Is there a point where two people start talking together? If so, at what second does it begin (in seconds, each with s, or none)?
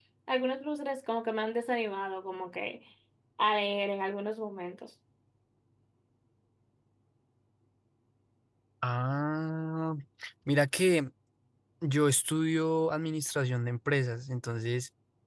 none